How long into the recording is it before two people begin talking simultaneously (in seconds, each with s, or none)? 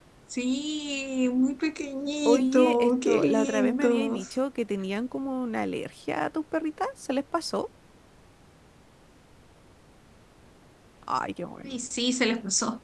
2.2 s